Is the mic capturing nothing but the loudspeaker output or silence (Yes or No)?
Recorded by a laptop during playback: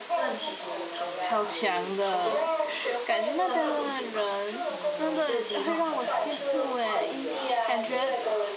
No